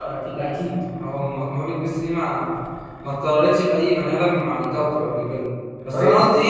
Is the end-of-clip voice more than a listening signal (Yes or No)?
No